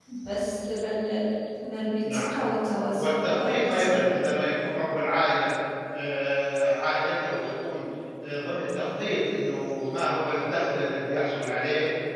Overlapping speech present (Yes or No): Yes